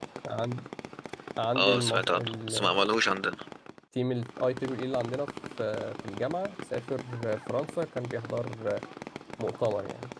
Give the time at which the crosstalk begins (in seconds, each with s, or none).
1.6 s